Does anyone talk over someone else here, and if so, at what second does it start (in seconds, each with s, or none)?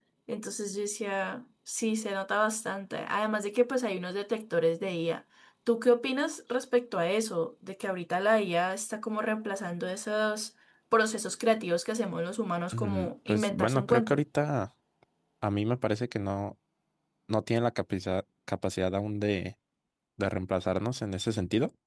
12.7 s